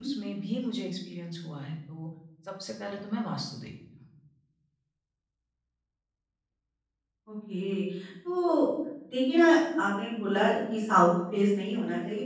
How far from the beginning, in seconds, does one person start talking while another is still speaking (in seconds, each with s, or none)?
none